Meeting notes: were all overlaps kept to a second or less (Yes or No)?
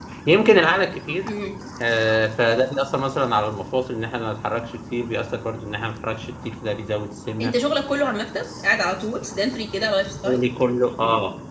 Yes